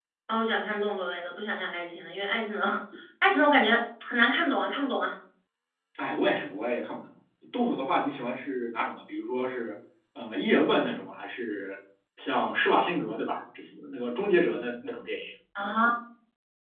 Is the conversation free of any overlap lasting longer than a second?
Yes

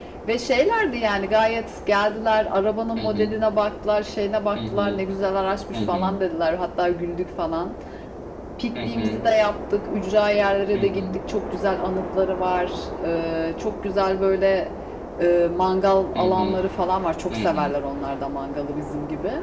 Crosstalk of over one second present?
No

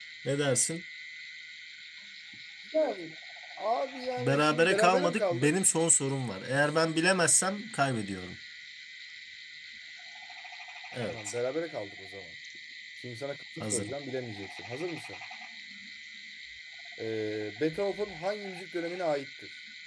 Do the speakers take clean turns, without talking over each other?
No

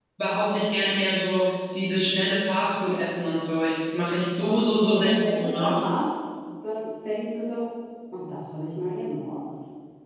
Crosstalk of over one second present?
Yes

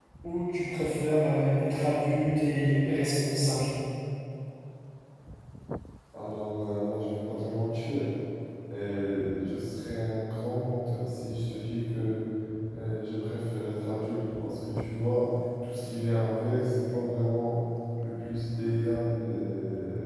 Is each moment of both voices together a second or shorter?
Yes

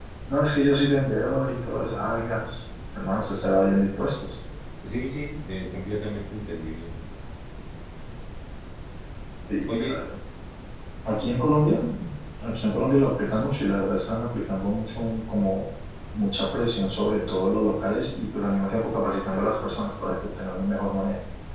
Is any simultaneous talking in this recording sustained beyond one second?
No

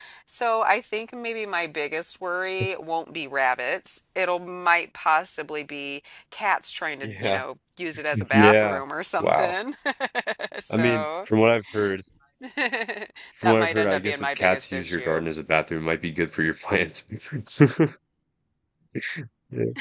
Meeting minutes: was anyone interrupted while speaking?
Yes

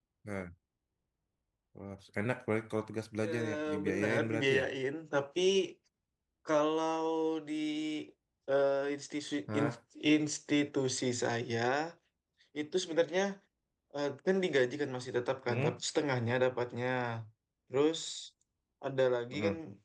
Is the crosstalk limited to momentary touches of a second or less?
No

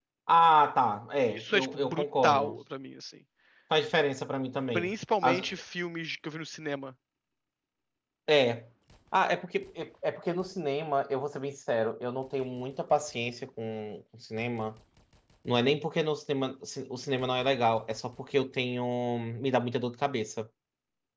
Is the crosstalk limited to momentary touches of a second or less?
No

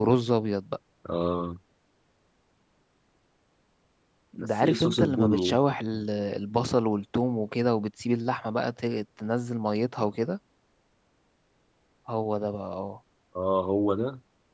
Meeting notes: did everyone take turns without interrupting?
No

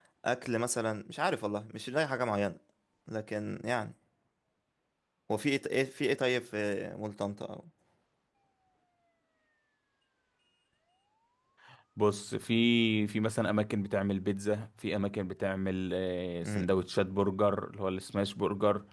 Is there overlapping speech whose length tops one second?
No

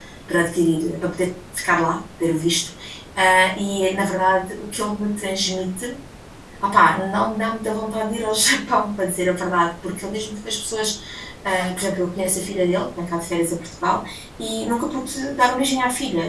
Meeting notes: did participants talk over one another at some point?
No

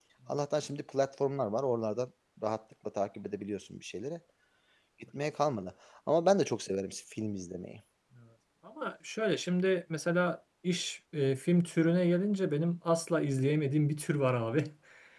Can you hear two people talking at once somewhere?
No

